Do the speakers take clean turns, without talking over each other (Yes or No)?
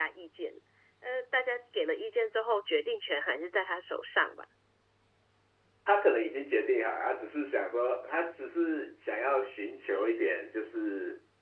Yes